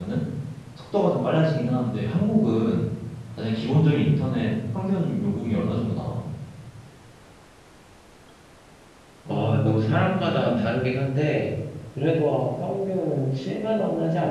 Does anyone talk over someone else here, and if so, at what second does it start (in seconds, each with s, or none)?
9.3 s